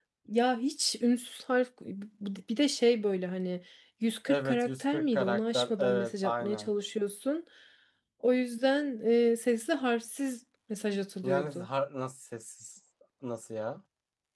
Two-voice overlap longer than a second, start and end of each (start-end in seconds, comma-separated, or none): 4.3-6.7